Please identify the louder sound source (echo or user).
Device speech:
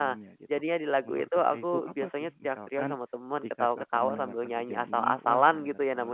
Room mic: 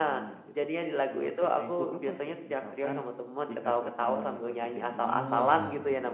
echo